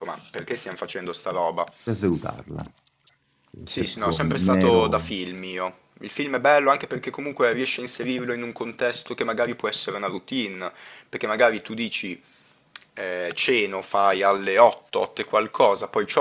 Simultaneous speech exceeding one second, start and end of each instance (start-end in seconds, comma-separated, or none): 3.6-5.1